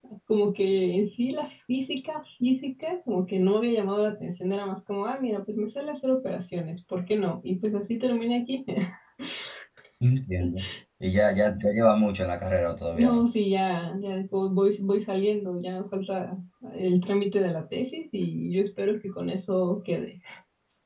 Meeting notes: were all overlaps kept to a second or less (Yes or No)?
Yes